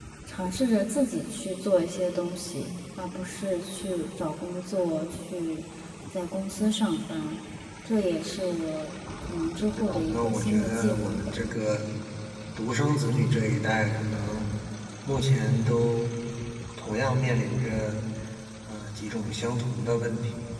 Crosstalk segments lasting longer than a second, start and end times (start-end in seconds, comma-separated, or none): 9.8-11.4